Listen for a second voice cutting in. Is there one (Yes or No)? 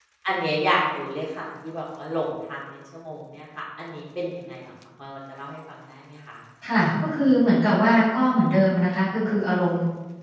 No